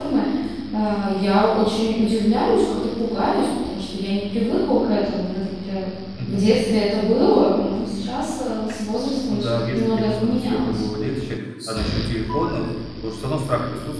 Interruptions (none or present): present